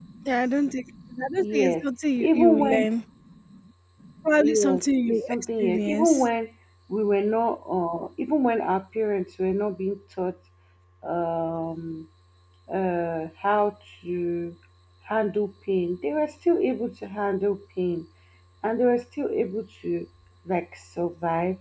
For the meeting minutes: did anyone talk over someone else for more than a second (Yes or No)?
Yes